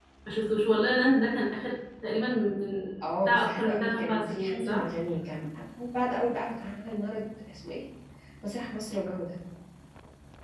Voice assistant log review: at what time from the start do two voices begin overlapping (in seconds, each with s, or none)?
3.2 s